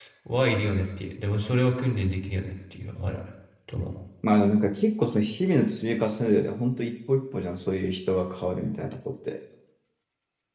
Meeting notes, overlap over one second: none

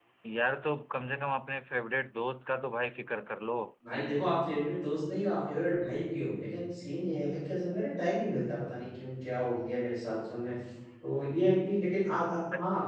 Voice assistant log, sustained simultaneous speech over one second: none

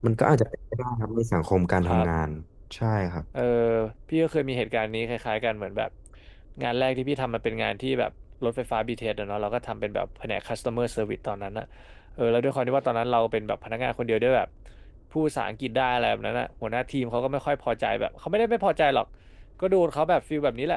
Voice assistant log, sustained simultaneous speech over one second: none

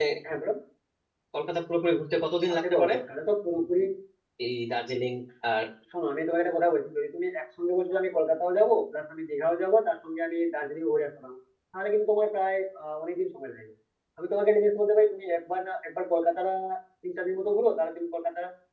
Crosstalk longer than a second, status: none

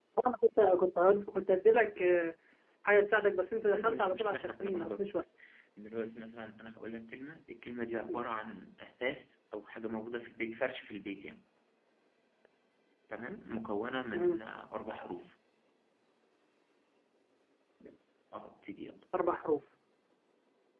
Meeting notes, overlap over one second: present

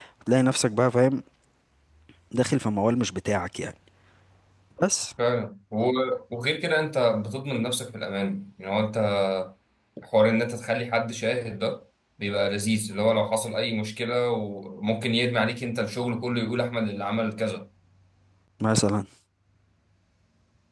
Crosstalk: none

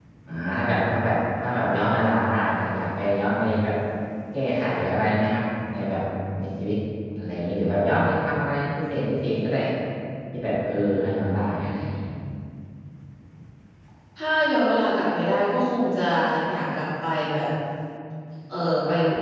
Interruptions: none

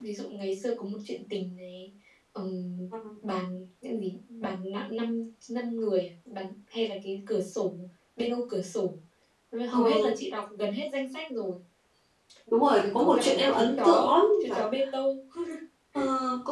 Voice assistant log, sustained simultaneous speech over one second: present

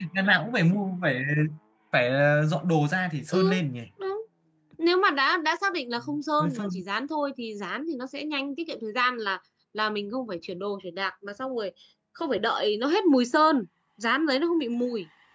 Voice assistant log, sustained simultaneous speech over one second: none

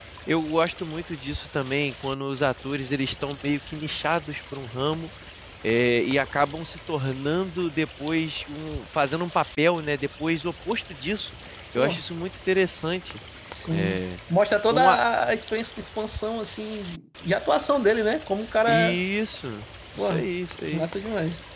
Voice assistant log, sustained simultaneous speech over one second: none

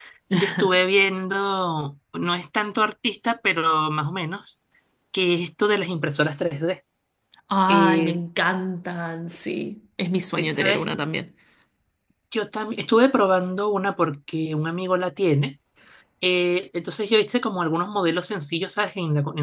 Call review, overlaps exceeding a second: none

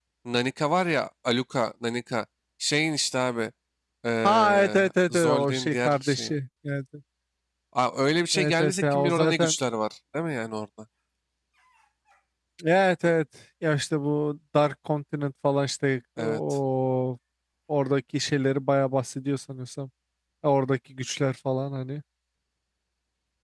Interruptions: present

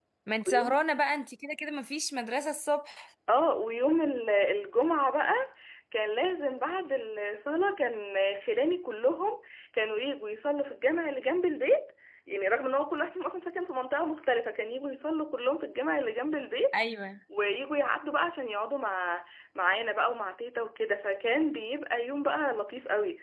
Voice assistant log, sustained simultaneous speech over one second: none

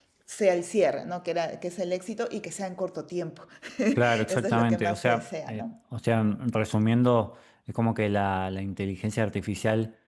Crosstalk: present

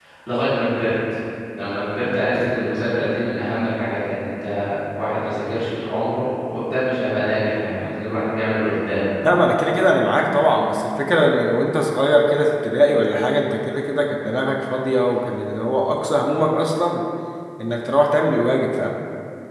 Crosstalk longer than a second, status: none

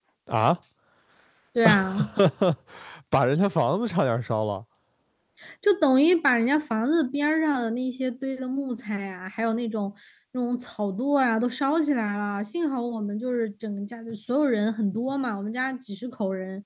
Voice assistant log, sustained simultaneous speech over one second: none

